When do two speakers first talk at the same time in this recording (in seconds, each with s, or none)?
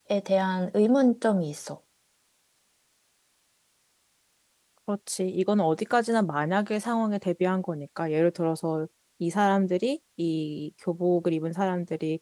none